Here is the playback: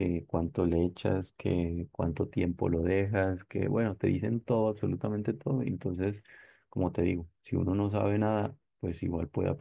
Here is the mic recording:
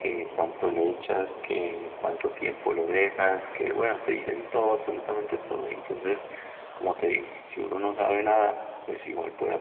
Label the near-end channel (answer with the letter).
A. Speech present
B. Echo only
B